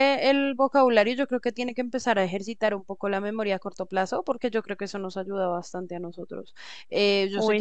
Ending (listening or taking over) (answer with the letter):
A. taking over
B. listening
B